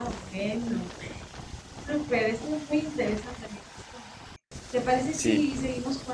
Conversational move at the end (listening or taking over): listening